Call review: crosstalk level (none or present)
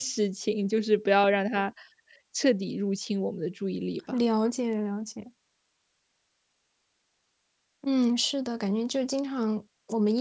none